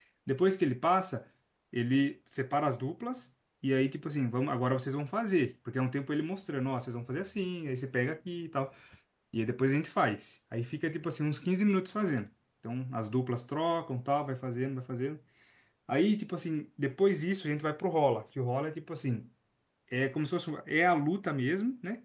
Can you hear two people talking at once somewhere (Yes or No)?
No